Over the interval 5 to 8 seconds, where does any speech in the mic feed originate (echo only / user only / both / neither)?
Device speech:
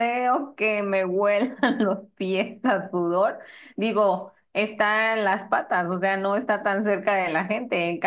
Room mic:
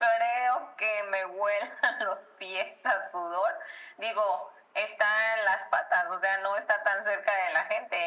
echo only